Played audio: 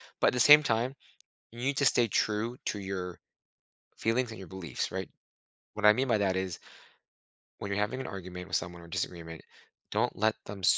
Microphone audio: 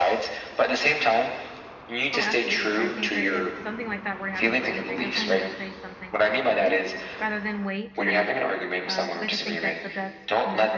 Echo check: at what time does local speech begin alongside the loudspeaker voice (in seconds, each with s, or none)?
2.1 s